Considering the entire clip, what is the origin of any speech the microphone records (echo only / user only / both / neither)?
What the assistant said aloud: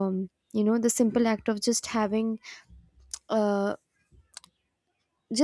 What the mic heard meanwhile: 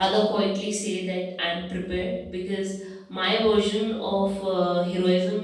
user only